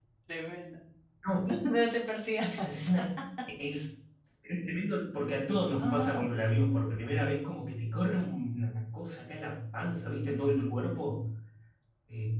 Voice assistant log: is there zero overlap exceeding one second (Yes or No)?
Yes